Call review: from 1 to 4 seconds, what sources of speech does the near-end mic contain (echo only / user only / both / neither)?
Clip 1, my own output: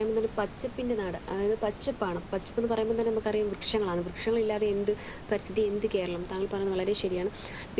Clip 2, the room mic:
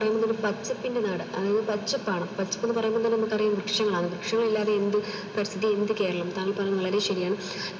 echo only